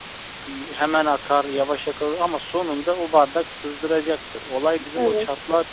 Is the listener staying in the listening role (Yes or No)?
Yes